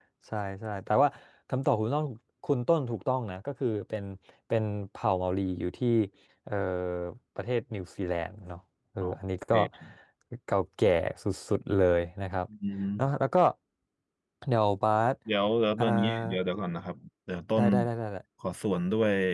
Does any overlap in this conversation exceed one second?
No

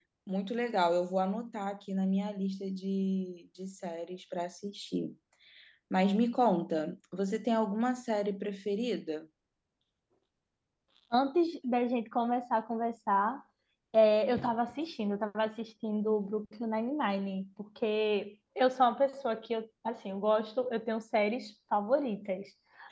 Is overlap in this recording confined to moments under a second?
Yes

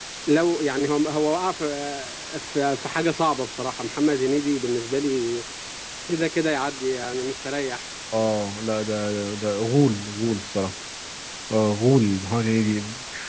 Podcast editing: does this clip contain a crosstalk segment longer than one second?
No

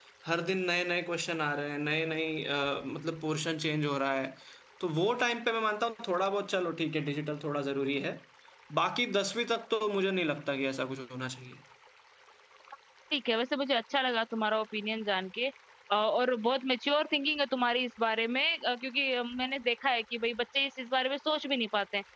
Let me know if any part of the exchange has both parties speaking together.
No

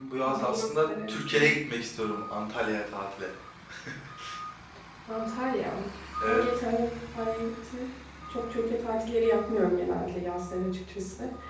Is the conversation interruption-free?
No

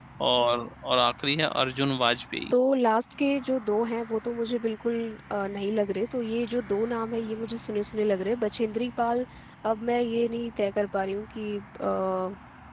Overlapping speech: No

